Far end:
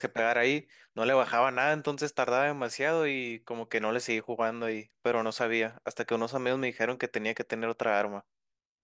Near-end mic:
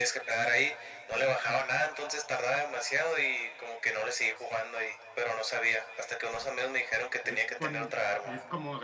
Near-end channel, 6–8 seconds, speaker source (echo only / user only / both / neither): both